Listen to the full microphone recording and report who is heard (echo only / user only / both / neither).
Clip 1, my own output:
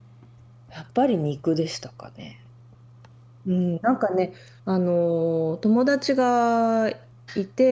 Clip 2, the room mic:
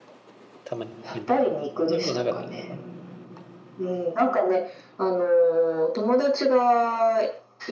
both